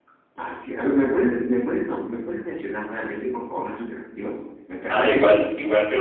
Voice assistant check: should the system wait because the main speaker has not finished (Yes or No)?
No